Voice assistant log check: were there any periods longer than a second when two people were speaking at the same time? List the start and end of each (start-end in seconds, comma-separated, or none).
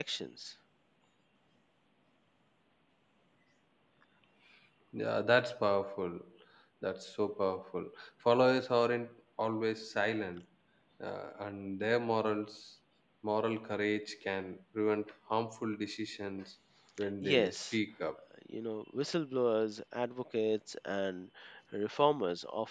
none